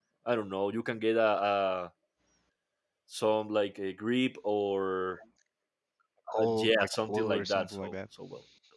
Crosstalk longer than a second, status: present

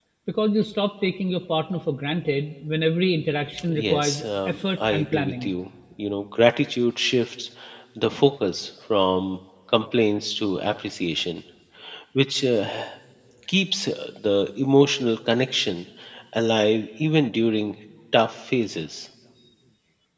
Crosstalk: present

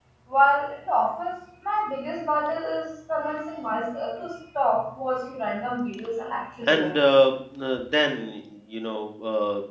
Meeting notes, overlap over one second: none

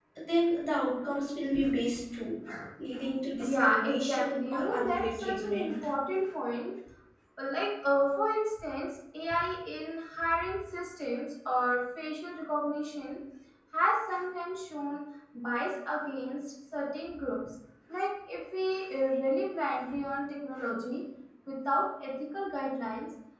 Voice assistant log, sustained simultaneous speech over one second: present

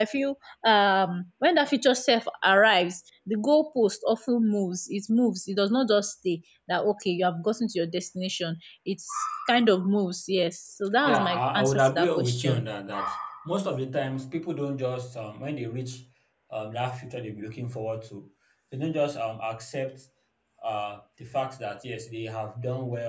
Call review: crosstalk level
present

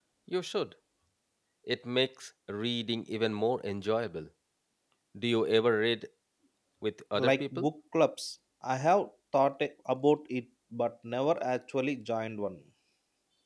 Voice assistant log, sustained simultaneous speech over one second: none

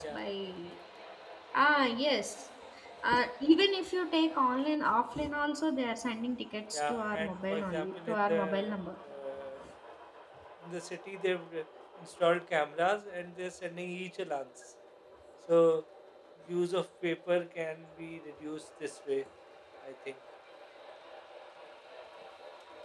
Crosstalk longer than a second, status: present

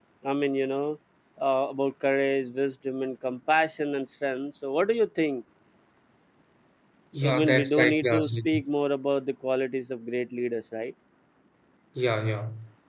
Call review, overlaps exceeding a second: present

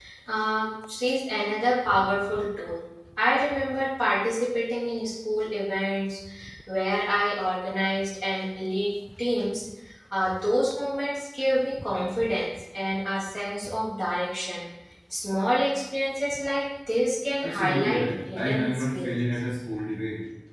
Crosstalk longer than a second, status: present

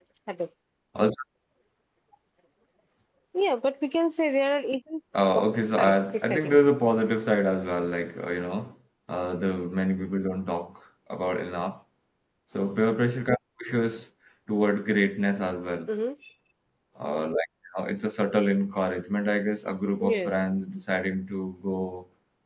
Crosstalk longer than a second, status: present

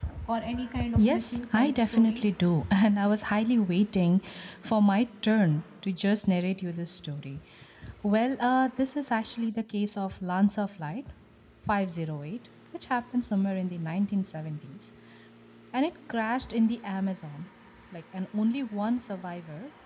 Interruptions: present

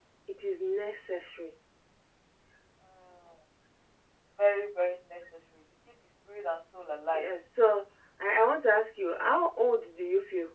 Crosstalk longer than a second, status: none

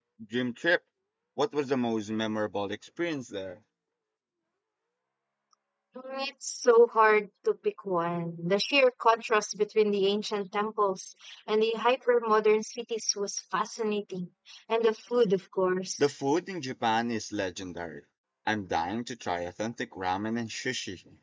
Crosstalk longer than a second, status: none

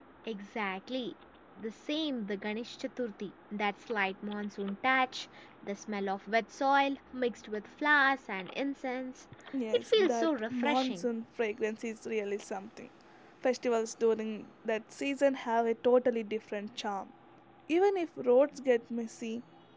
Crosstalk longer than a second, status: present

